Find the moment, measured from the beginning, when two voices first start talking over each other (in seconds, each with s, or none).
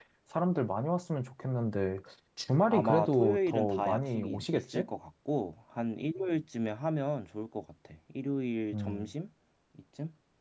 2.7 s